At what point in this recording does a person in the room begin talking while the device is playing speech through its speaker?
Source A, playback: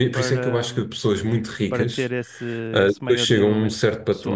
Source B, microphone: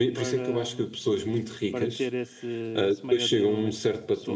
none

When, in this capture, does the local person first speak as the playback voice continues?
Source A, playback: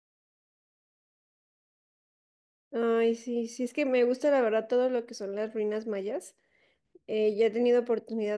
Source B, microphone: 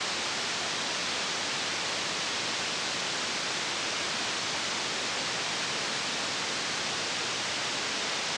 none

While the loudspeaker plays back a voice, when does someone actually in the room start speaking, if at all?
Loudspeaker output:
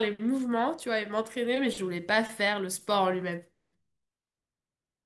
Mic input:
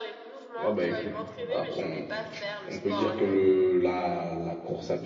0.6 s

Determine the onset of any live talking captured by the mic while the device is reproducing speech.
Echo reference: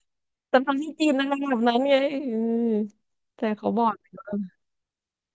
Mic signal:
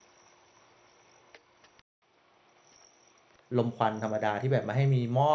3.6 s

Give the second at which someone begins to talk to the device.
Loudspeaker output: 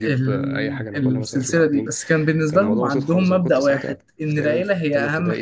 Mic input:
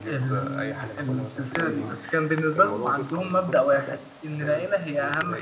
1.6 s

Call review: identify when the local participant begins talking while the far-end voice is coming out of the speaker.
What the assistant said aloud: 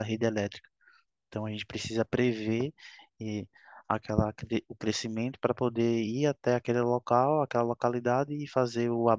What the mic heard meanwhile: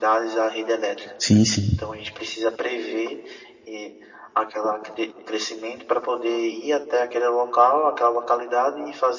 1.2 s

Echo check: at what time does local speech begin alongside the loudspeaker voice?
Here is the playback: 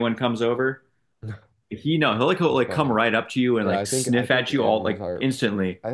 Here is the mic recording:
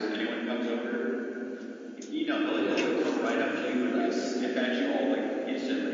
2.6 s

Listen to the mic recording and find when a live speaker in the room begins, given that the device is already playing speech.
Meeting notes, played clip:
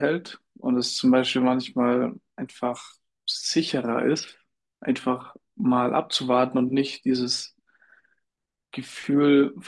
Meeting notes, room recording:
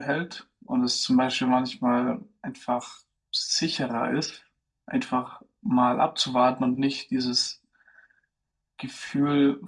none

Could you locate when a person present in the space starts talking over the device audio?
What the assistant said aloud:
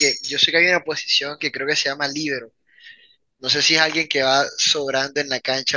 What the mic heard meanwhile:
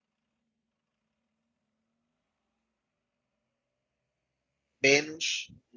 4.8 s

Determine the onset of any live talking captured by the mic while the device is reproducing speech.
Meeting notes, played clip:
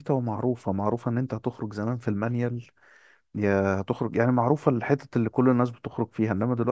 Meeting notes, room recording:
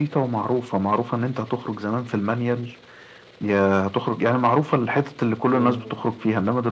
5.5 s

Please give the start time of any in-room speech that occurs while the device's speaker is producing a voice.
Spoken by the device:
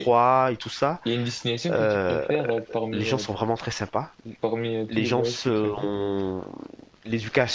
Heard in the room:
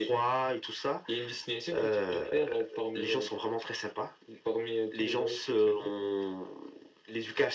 none

